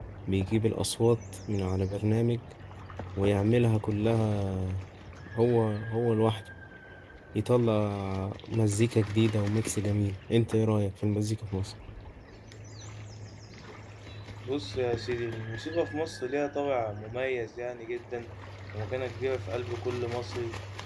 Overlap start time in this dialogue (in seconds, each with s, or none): none